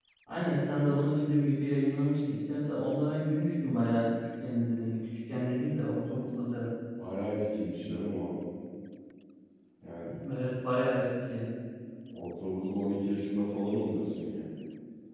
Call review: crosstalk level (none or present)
none